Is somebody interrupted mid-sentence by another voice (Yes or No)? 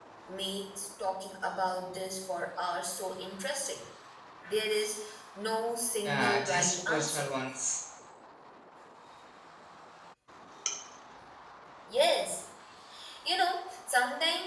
Yes